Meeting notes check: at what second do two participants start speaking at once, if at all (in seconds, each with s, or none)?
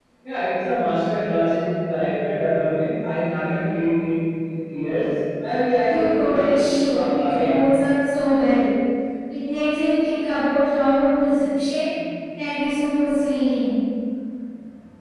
5.8 s